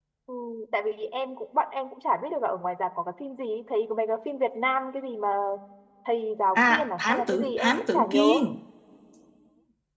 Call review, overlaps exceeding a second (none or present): present